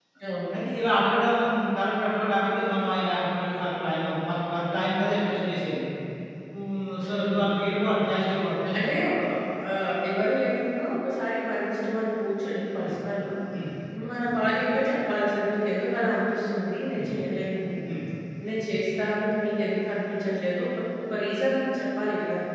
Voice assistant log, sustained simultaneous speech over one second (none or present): none